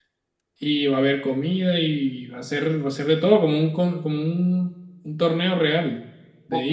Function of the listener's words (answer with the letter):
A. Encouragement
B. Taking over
B